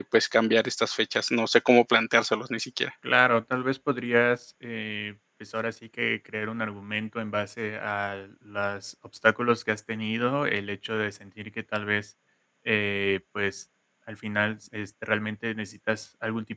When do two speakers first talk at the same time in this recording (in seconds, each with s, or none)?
none